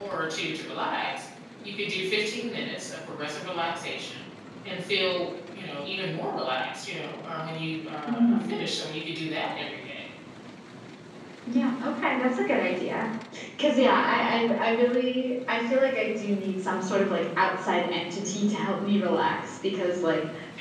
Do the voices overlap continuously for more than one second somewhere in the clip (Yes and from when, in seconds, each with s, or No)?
No